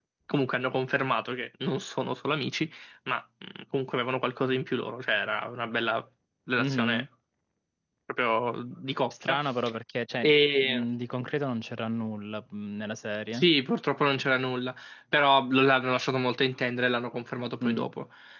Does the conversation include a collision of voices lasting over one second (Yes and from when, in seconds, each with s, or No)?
No